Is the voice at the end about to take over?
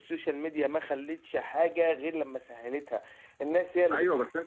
Yes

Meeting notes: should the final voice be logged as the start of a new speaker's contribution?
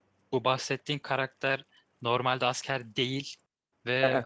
No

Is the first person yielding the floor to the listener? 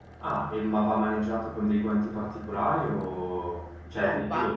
Yes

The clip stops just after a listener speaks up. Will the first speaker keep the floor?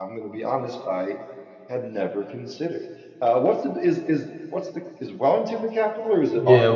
No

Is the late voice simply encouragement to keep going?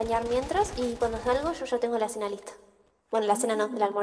No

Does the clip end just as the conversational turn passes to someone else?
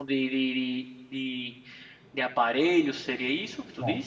Yes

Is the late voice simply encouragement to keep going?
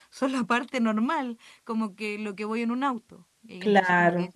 Yes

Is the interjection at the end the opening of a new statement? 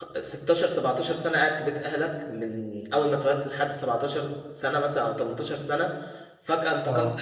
No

